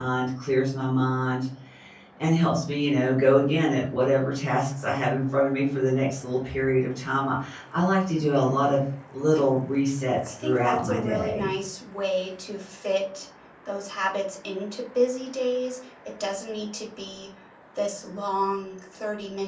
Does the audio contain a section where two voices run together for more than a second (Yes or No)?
Yes